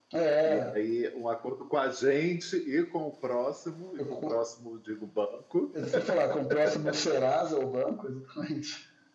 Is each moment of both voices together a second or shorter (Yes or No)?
Yes